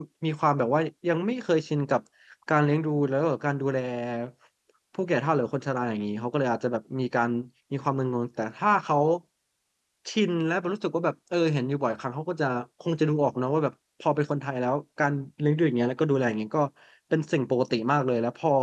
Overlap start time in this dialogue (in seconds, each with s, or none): none